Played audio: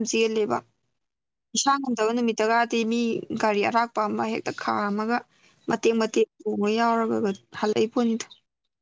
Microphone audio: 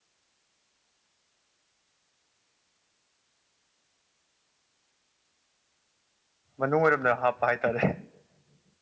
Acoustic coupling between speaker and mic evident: No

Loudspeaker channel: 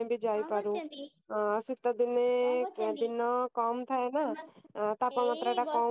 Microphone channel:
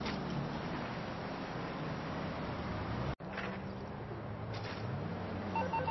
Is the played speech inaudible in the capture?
Yes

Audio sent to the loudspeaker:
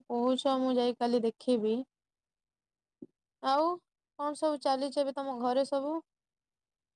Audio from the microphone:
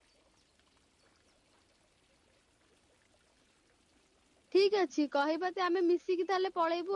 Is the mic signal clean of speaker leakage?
Yes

